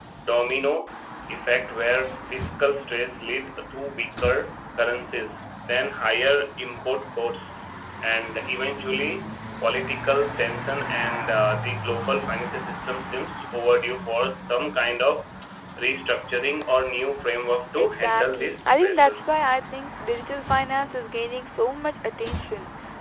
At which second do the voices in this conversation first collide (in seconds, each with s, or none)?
17.8 s